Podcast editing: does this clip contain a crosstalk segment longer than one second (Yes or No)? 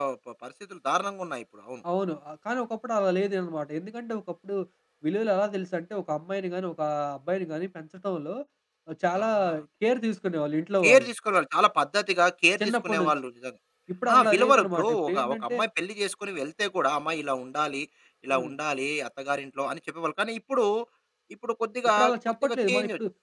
Yes